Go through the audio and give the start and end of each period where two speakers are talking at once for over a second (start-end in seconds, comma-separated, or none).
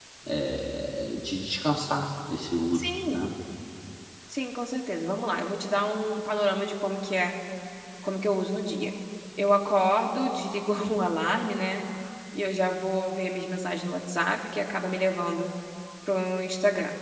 none